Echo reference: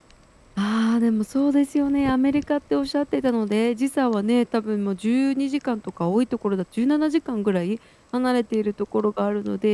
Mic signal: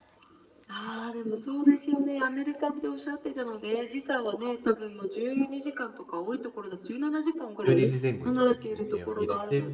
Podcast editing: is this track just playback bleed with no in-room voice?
No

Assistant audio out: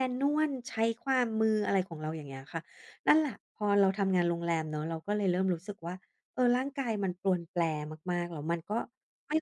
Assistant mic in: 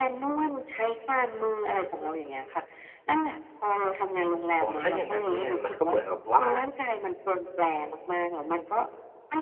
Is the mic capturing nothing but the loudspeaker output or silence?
No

